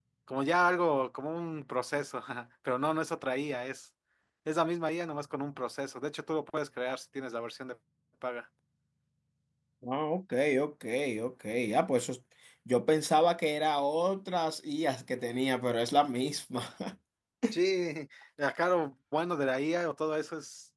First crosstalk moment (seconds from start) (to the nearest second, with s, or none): none